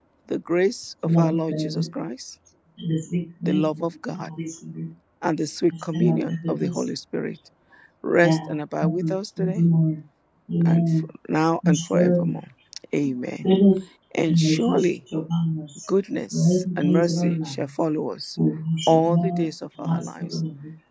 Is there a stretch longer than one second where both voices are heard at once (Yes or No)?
Yes